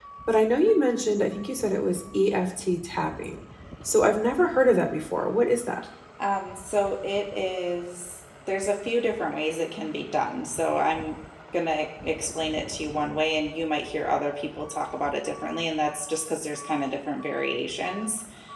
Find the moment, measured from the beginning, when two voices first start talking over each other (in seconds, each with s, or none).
none